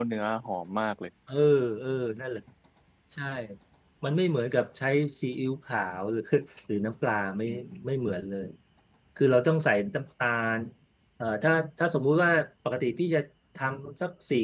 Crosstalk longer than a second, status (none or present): none